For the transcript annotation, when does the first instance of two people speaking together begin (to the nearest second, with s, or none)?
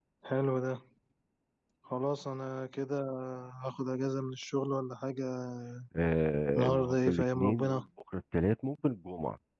7 s